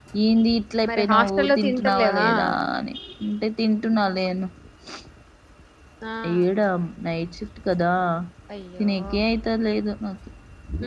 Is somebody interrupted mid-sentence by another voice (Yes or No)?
Yes